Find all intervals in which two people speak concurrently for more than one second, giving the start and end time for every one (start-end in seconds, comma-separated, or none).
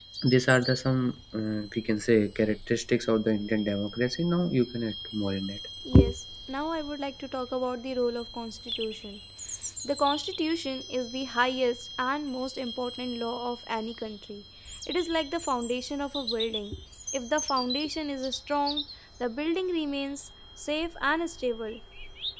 none